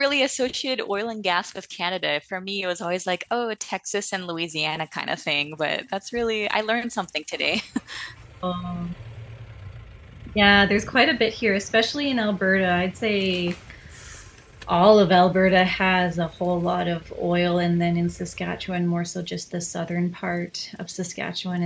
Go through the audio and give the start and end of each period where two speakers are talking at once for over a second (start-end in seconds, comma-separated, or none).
none